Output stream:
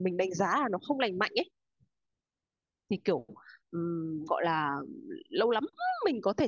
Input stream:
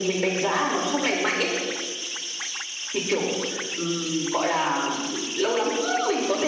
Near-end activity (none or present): none